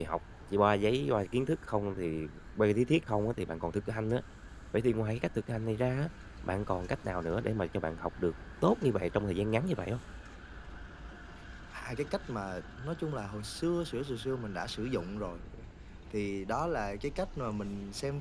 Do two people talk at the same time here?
No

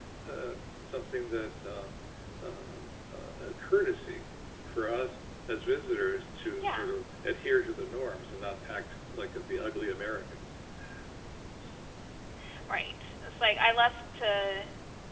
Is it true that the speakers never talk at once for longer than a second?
Yes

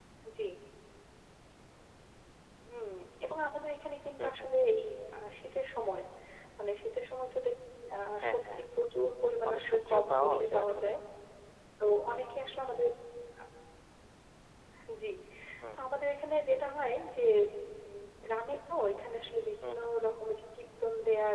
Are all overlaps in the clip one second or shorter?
No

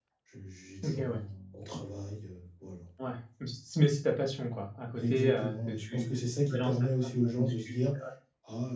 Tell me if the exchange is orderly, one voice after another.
No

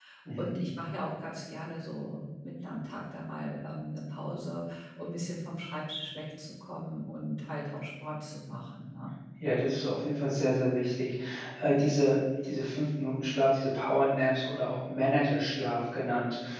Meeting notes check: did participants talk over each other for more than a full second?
No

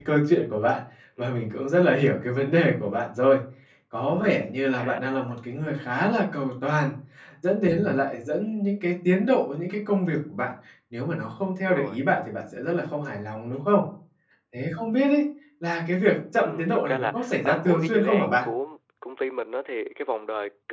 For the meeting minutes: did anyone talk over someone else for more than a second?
Yes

